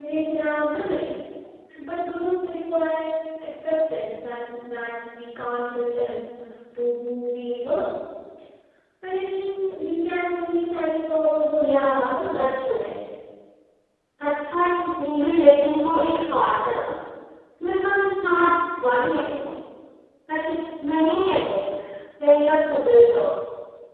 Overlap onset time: 12 s

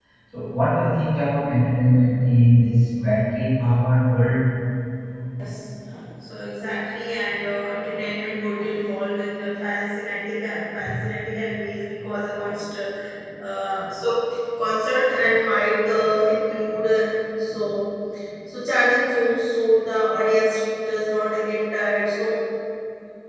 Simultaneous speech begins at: none

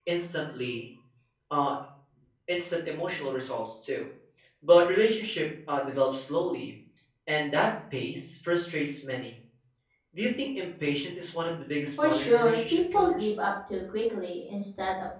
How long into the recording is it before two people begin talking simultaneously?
12 s

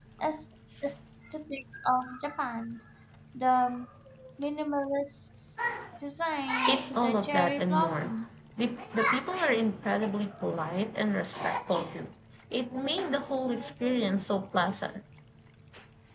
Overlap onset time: 7 s

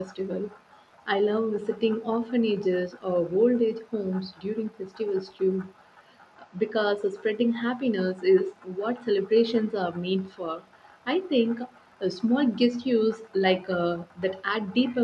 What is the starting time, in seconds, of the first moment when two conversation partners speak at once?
none

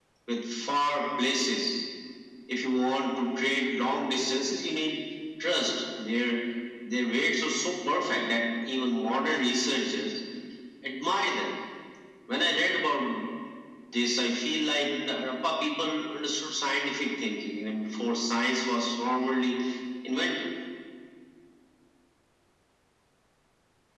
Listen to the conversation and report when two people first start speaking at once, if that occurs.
none

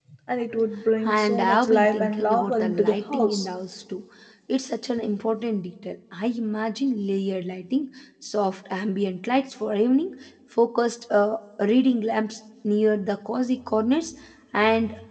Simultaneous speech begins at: 1 s

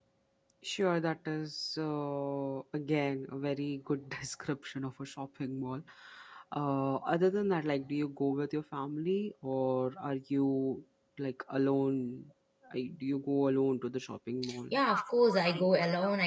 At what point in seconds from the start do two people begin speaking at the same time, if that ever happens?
none

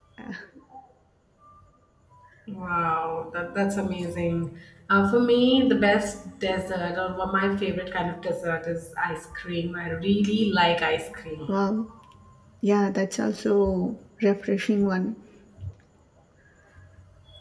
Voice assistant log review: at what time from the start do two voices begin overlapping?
none

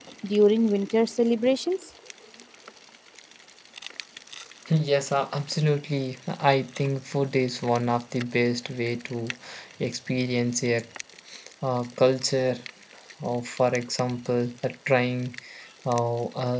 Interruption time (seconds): none

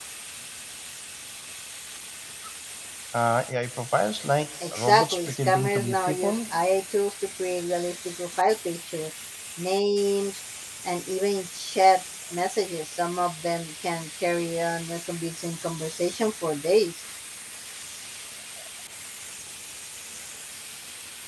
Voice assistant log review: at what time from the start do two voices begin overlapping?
5 s

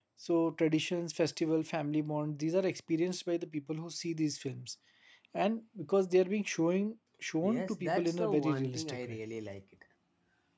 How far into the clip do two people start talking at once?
7 s

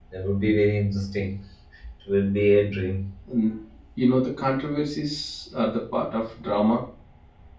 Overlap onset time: none

